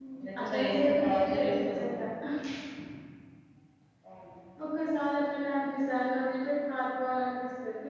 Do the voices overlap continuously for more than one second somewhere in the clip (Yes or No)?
Yes